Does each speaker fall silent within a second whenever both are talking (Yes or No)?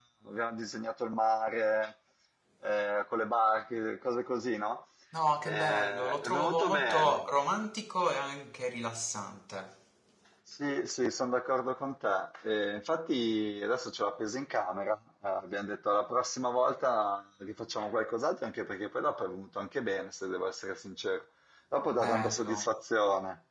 No